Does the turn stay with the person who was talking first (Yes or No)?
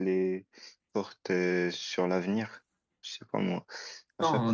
No